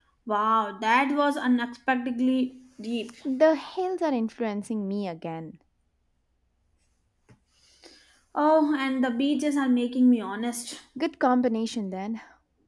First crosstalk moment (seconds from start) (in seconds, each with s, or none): none